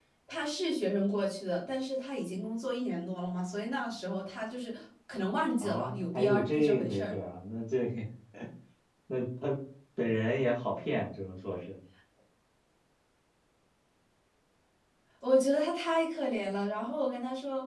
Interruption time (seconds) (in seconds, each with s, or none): 5.6 s